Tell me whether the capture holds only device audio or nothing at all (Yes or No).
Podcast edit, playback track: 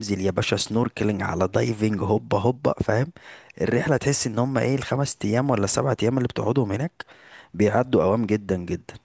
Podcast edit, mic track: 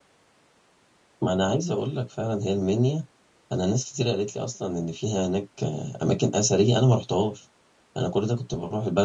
No